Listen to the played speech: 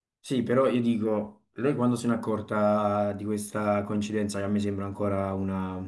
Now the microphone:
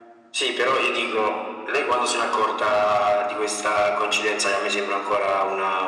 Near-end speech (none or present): none